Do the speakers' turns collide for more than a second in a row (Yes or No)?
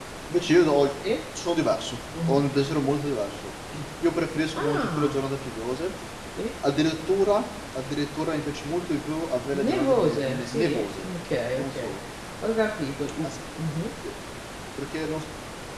Yes